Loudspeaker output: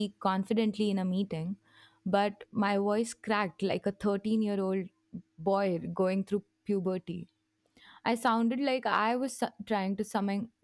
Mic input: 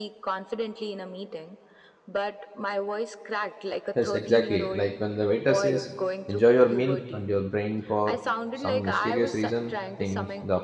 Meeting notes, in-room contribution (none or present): present